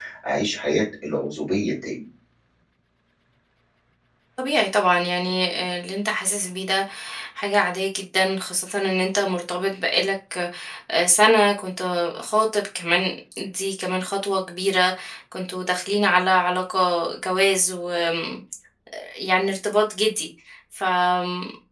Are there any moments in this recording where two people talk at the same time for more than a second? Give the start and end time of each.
none

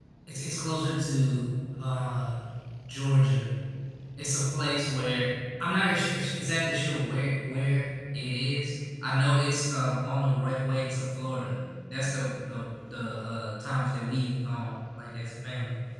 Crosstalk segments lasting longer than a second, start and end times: none

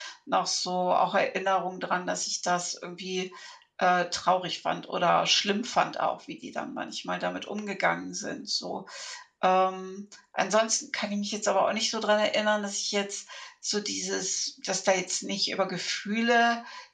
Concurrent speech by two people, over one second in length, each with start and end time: none

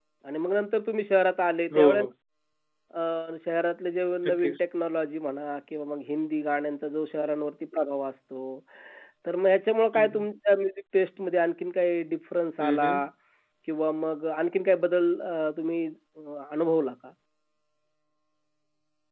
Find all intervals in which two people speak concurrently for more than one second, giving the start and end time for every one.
none

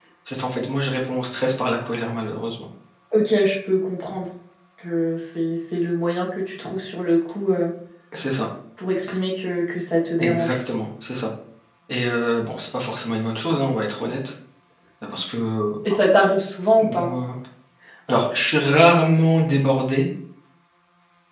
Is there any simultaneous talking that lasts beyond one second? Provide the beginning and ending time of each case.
none

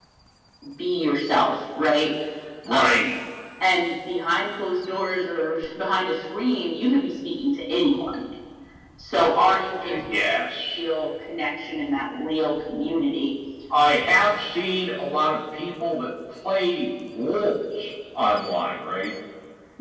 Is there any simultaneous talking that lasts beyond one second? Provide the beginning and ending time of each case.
none

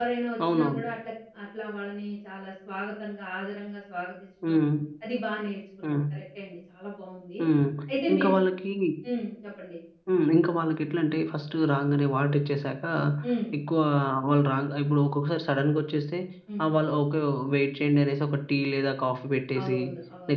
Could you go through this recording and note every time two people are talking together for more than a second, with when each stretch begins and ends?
none

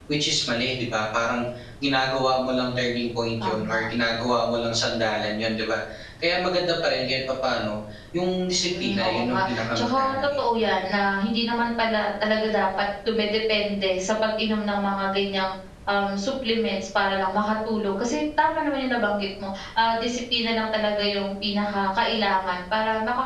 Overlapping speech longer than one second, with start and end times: 8.5-10.8

